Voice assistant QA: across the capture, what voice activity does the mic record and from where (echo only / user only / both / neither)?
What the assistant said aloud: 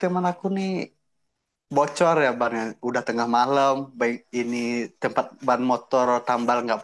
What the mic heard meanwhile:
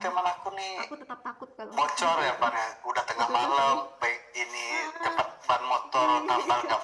both